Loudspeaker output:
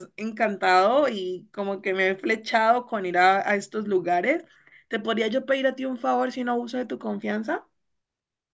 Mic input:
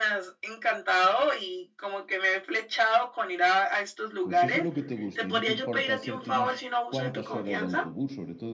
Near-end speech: present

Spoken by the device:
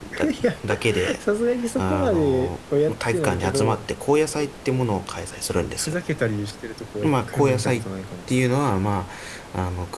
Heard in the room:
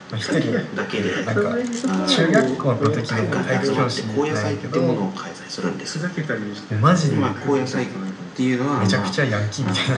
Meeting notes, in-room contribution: present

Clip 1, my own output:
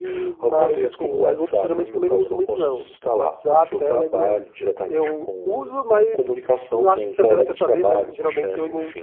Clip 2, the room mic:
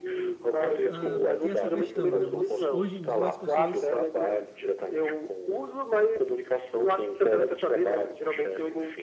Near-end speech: present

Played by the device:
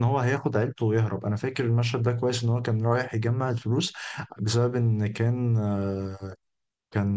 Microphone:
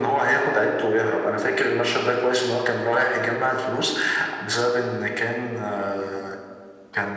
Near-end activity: none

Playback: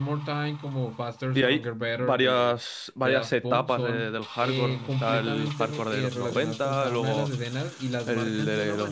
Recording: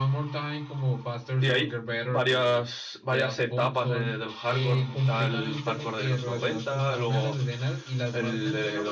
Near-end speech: none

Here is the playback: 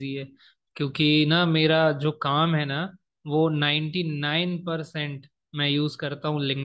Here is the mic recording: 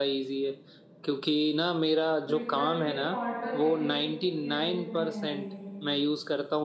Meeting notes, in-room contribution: present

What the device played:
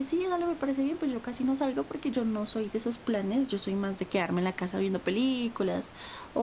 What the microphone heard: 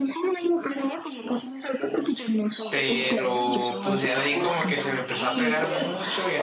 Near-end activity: present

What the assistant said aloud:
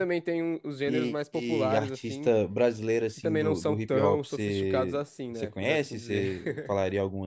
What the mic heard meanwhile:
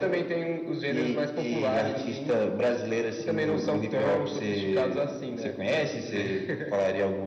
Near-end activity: none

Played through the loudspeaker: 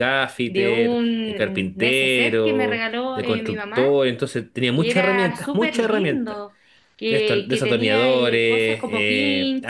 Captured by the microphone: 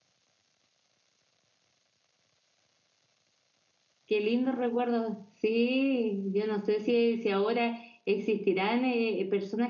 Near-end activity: present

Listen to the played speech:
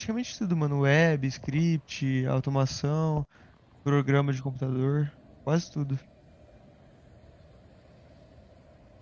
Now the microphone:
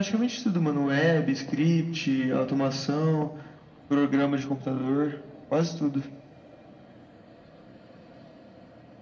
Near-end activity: none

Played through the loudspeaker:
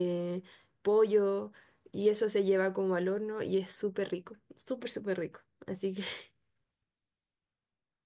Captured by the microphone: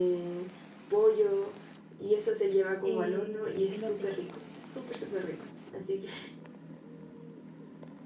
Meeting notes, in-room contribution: present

